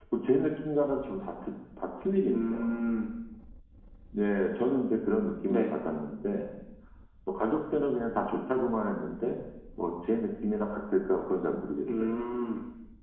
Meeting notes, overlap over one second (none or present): none